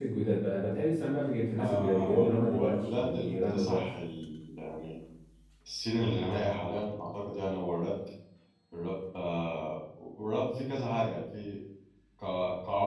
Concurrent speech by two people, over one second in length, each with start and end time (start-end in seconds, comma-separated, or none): 1.6-3.8